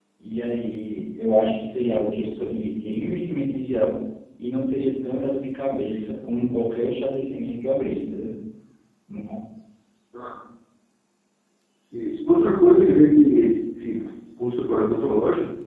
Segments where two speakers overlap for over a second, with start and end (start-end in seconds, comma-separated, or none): none